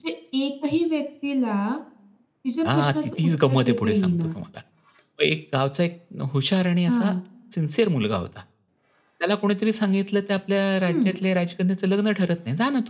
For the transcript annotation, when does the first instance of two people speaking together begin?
2.7 s

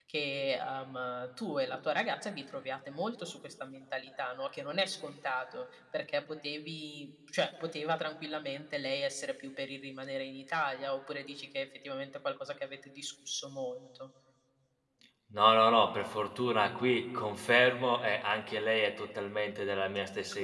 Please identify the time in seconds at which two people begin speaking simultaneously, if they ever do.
none

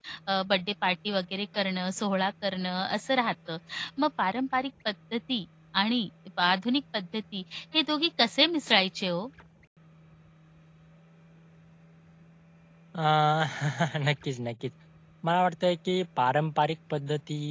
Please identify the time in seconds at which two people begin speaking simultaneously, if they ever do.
none

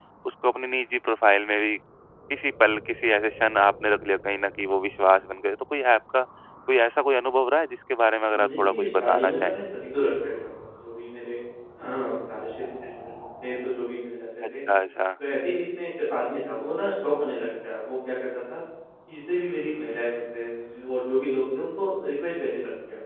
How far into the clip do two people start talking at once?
8.3 s

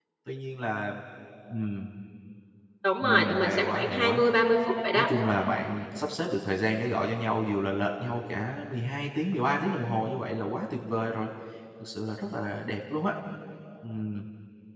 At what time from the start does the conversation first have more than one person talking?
3.0 s

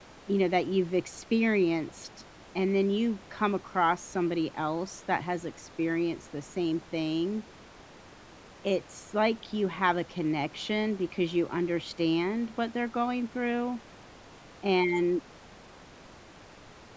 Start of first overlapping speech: none

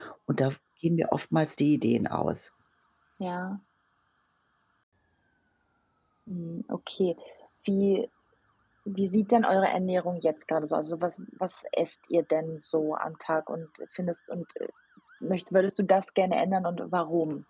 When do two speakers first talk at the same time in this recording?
none

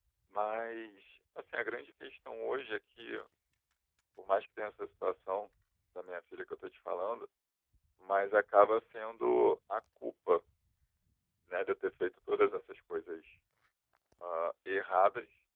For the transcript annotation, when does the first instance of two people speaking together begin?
none

